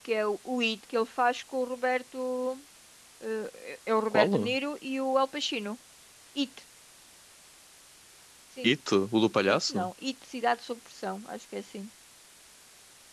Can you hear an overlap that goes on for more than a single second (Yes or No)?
No